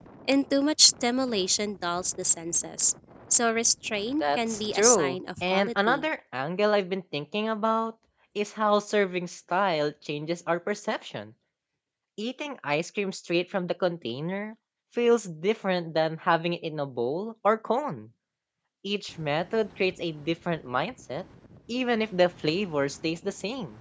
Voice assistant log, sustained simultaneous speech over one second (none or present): present